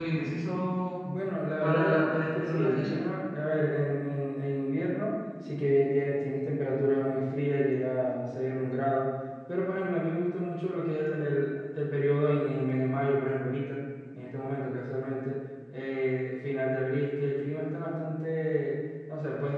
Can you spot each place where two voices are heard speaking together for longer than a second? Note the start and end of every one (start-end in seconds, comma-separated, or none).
1.6-3.0